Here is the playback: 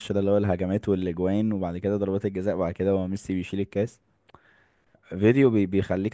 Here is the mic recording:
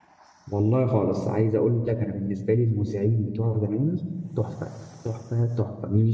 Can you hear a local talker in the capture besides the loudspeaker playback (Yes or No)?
Yes